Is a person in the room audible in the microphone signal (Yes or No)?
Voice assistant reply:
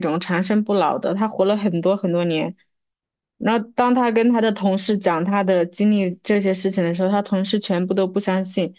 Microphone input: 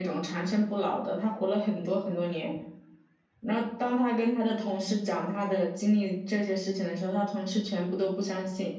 No